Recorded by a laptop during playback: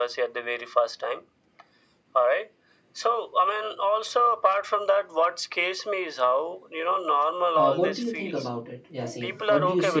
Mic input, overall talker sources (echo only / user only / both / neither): both